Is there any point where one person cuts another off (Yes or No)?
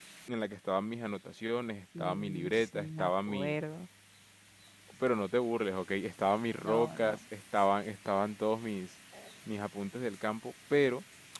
Yes